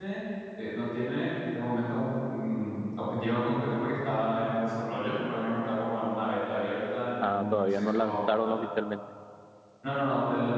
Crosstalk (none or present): present